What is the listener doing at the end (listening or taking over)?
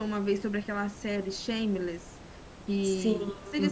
listening